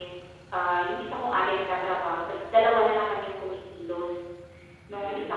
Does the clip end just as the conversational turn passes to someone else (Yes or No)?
No